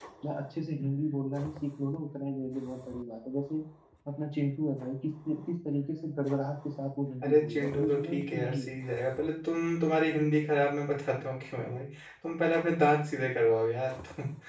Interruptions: present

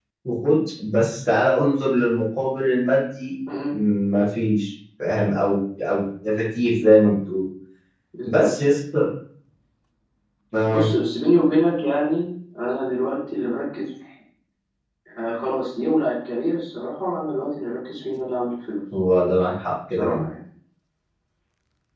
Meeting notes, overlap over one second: none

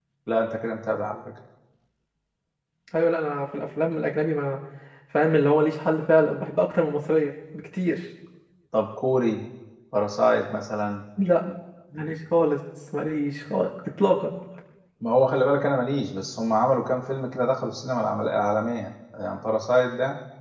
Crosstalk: none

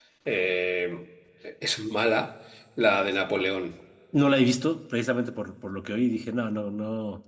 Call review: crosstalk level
none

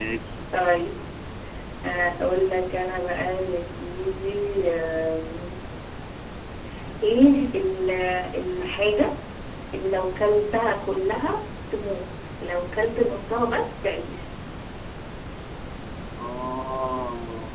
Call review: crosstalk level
none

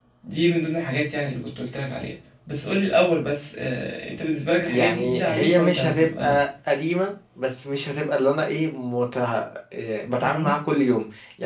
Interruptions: present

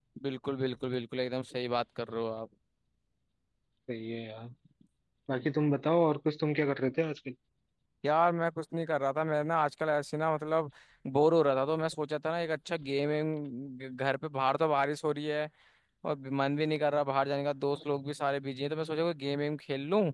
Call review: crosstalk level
none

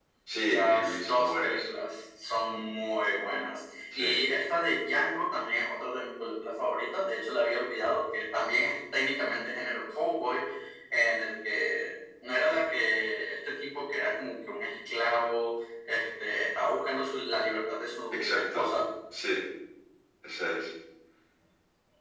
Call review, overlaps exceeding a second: present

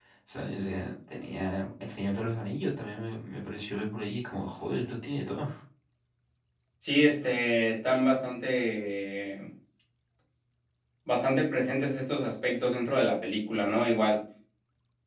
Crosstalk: none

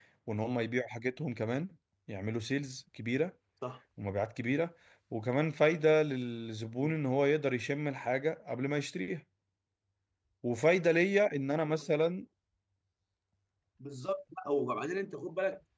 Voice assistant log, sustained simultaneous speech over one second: none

